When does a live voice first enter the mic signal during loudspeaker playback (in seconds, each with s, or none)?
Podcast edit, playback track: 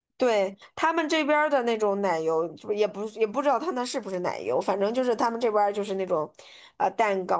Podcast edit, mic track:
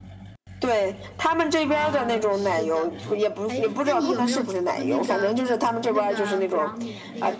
1.6 s